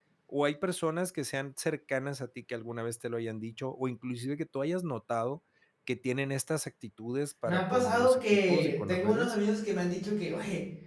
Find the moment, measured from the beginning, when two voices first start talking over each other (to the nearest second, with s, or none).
7 s